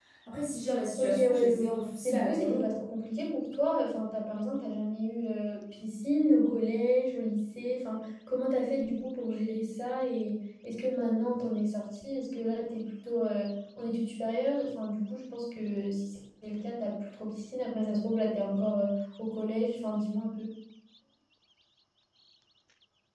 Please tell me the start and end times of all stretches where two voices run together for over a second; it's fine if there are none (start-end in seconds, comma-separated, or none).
1.0-2.7